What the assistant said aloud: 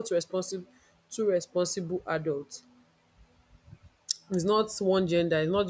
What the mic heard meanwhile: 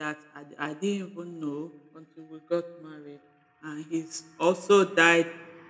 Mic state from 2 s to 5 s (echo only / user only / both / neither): user only